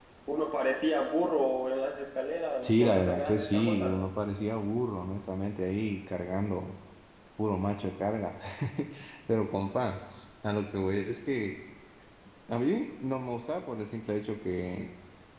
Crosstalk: present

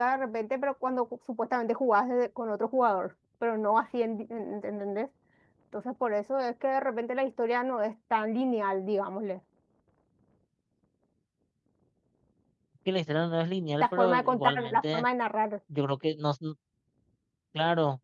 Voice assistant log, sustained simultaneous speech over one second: present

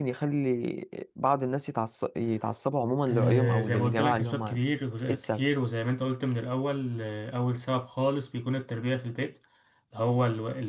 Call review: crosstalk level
present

